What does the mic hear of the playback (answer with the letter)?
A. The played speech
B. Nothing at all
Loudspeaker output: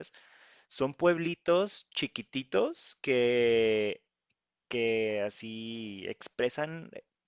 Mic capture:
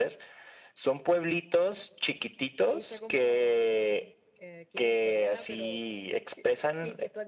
A